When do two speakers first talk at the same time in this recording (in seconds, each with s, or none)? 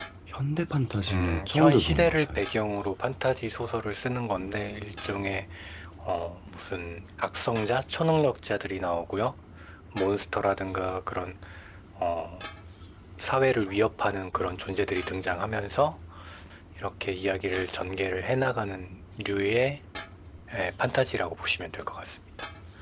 1.1 s